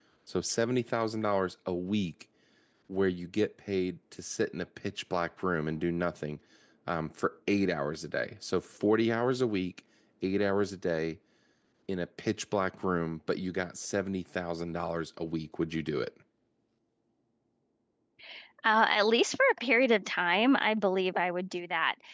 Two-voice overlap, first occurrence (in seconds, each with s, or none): none